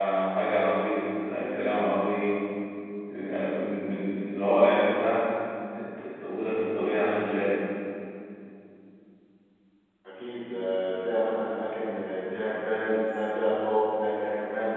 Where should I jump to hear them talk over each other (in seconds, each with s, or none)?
none